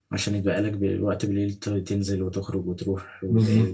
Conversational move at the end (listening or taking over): taking over